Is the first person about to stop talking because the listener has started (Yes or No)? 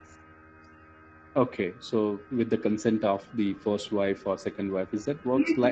Yes